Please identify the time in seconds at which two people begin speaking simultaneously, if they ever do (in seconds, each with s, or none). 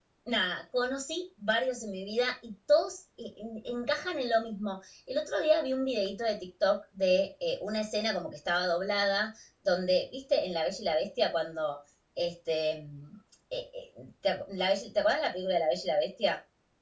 none